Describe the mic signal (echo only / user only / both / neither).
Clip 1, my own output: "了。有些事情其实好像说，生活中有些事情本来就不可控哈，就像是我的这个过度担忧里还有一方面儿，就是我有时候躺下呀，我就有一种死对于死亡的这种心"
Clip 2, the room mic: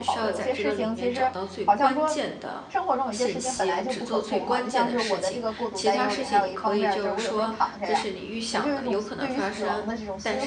both